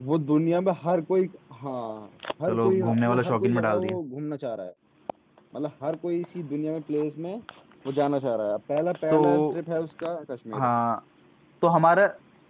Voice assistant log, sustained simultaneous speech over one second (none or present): present